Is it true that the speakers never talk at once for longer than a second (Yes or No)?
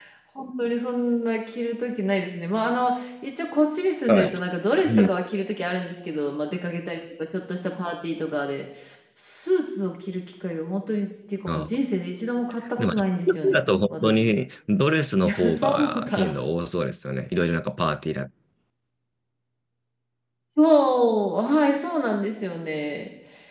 No